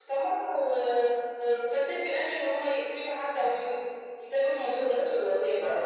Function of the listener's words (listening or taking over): taking over